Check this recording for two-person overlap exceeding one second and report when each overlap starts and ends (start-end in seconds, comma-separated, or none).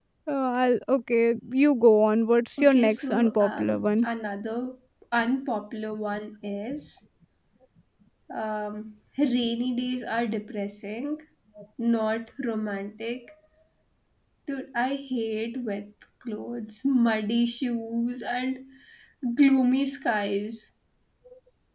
2.6-4.1